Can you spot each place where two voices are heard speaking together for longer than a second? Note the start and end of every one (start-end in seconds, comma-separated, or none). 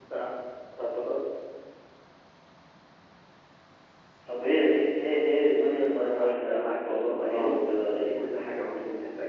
5.6-7.6